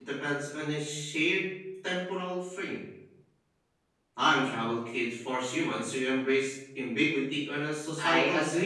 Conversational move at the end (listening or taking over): taking over